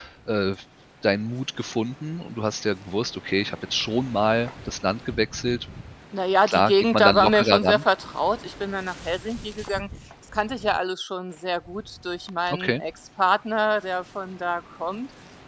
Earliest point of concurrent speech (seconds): 6 s

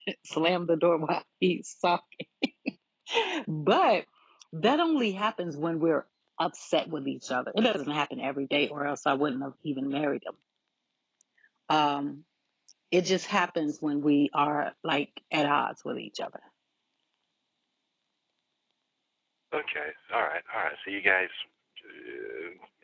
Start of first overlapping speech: none

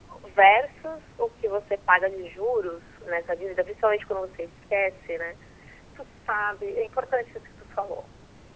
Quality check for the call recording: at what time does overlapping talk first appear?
none

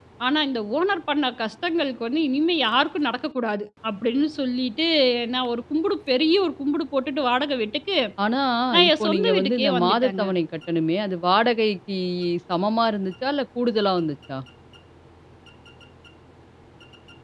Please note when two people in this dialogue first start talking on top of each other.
9 s

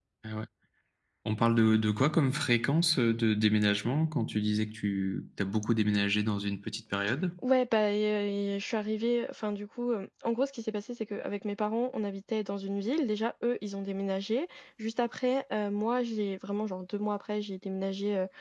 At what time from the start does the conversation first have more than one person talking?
none

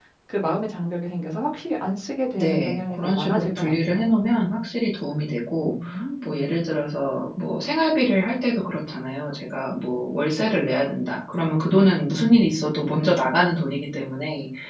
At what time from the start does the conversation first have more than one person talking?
2 s

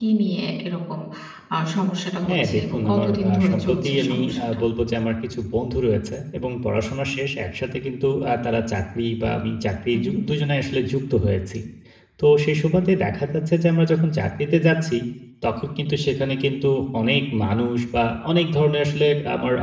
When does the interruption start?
2 s

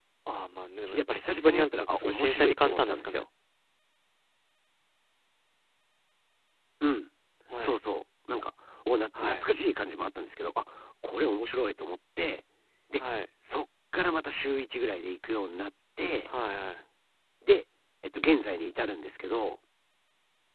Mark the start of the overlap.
1 s

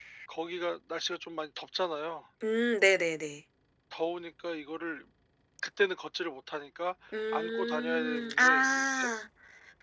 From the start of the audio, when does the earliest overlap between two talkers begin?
7 s

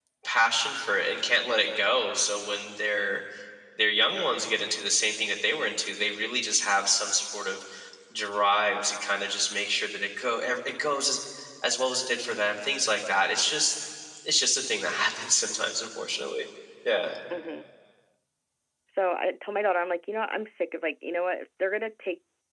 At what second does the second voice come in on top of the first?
none

